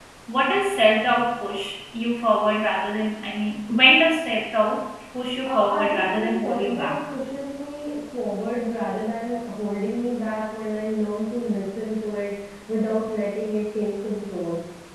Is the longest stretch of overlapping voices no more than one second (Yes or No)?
No